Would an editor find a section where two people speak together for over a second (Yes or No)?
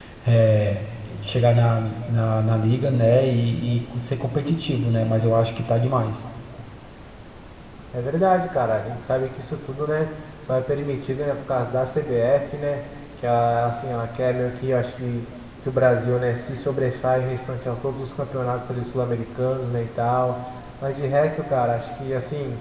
No